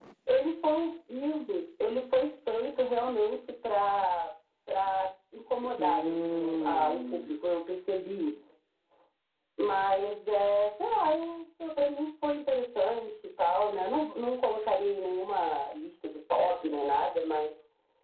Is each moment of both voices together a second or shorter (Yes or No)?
No